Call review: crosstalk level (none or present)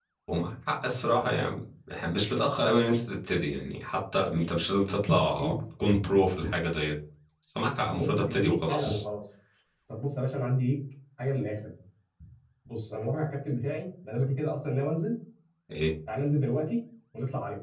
present